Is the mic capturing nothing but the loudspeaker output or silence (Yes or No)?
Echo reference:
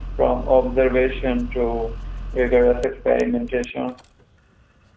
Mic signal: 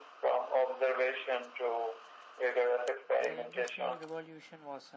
No